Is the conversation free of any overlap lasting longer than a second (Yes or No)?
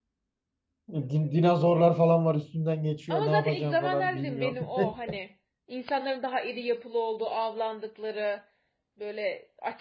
No